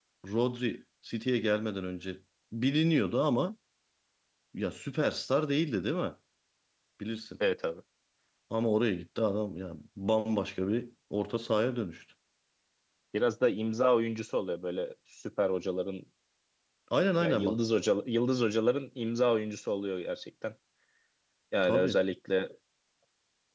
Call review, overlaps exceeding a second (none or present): none